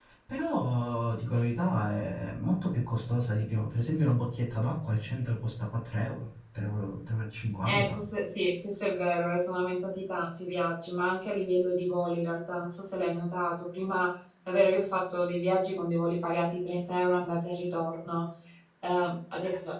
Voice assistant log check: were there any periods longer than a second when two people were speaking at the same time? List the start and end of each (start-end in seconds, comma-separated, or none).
none